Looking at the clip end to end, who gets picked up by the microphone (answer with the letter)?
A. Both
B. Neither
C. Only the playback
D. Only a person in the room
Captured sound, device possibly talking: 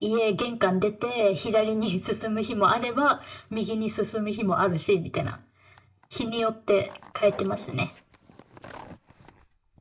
C